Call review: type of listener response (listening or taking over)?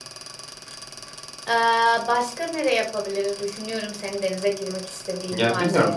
taking over